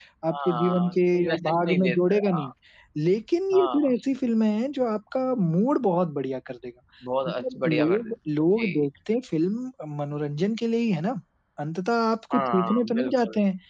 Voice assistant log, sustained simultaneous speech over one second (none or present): present